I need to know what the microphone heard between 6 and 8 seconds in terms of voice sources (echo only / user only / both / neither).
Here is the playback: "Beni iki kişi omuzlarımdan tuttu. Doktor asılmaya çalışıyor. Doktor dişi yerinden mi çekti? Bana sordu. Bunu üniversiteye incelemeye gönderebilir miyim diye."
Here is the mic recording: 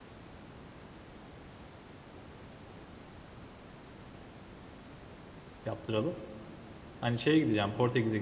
user only